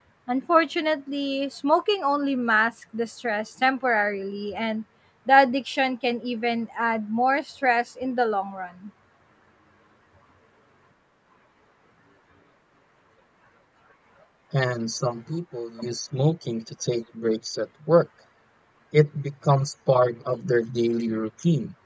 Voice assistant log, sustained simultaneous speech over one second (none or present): none